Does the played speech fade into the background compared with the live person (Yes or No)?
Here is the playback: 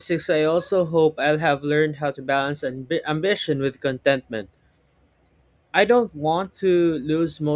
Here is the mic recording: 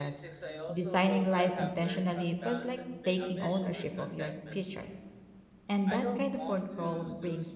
Yes